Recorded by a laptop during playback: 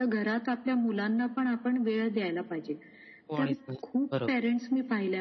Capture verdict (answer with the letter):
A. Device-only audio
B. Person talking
B